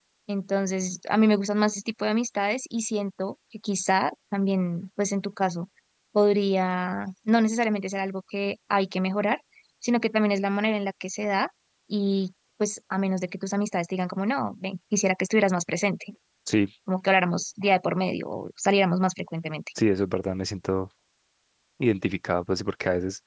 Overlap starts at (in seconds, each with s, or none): none